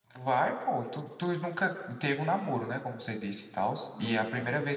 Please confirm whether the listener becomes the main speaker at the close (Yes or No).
No